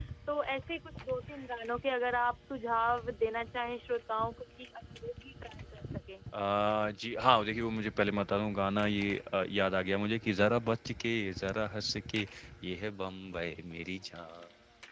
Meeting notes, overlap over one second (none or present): none